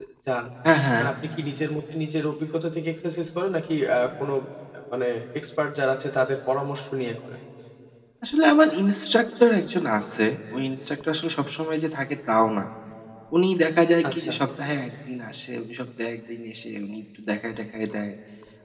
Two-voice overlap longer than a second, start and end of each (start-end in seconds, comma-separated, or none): none